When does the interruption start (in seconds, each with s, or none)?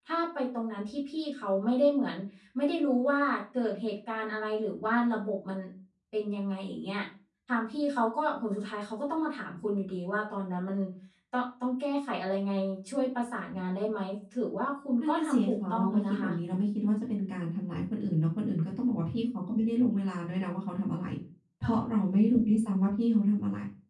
15.0 s